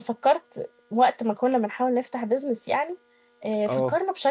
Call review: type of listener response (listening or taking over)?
listening